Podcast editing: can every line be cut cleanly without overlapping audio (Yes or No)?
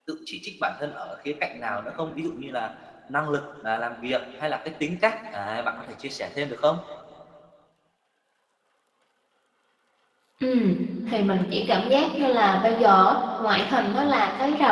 Yes